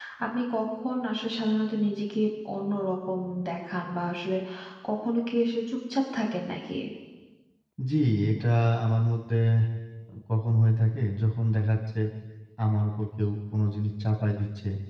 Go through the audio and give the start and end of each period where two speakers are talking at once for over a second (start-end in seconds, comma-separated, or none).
none